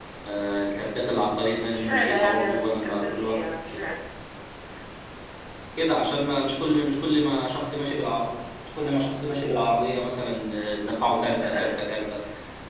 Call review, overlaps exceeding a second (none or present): present